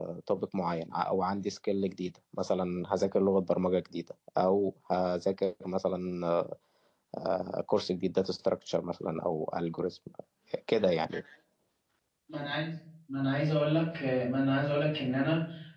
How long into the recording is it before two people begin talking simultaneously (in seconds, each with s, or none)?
none